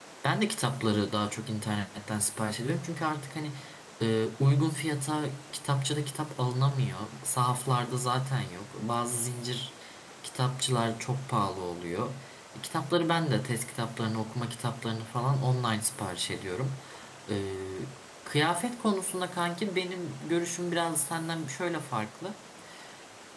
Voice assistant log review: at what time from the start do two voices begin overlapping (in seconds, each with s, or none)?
none